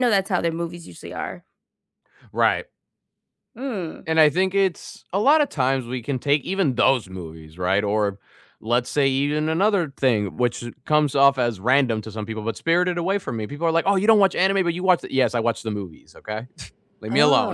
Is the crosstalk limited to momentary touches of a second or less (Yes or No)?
Yes